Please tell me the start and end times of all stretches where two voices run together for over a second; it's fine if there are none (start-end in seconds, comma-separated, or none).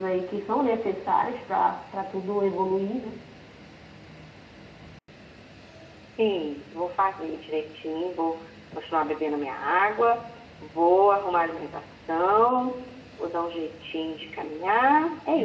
none